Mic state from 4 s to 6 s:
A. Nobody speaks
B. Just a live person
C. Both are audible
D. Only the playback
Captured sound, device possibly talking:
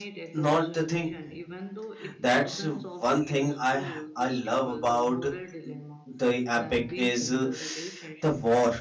C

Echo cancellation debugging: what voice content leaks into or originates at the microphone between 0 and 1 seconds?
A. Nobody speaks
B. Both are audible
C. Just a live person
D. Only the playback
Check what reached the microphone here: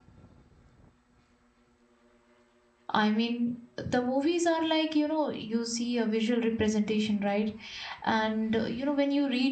A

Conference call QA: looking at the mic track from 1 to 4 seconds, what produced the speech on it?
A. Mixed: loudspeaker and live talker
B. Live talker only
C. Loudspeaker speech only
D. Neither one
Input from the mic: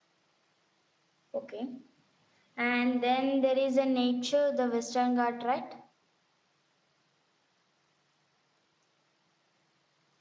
B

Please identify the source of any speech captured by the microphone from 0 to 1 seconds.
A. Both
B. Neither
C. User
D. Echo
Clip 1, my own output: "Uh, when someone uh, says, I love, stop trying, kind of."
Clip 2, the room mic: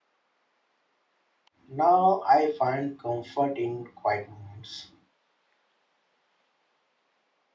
B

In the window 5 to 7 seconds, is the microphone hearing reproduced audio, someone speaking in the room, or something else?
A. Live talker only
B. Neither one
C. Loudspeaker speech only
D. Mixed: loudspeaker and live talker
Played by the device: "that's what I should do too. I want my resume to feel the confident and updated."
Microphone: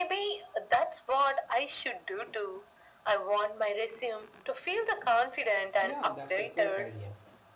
D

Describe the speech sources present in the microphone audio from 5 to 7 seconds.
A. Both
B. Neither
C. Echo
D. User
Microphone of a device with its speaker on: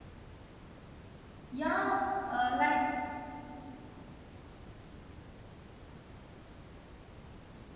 B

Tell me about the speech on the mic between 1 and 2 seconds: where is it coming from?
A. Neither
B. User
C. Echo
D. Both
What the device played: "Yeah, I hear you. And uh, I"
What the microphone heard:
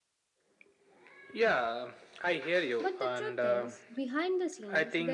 C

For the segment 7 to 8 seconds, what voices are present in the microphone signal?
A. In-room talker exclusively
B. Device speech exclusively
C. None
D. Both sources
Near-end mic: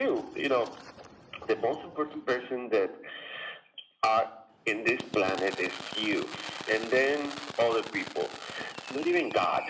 B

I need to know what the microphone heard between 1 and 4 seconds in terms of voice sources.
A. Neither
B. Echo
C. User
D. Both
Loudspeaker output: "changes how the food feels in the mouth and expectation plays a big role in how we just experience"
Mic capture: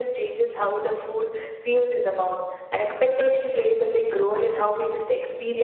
B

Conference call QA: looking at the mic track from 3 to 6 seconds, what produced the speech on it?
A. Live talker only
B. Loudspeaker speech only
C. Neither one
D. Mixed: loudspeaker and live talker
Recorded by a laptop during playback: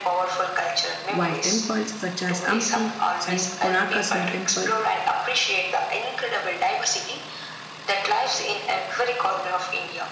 D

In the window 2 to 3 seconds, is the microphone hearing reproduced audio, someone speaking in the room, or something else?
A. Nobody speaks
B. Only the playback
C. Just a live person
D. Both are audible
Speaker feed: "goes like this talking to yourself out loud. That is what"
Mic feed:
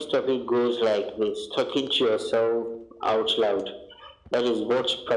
B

